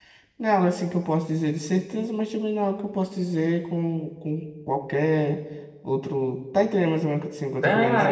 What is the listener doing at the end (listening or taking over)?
taking over